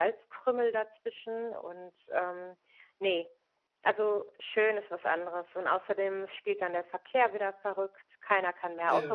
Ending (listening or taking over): listening